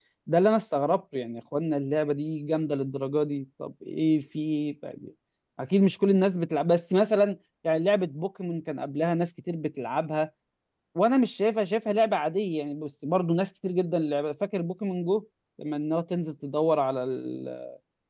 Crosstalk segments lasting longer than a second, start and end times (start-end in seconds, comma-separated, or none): none